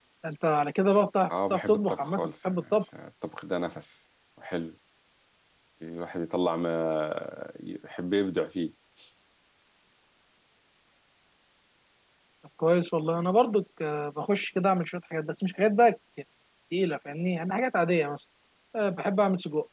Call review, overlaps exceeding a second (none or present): present